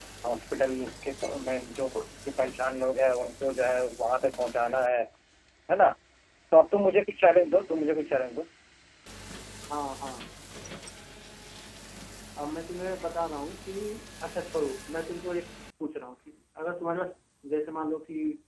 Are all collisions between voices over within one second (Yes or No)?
Yes